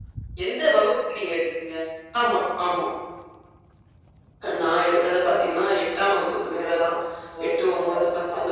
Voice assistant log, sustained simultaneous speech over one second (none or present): none